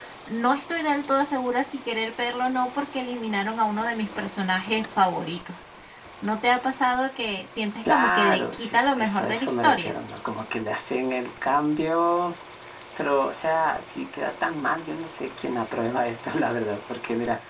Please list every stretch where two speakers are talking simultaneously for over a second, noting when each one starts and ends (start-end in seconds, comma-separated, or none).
7.9-9.9